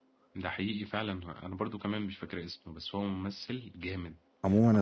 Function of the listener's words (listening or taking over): taking over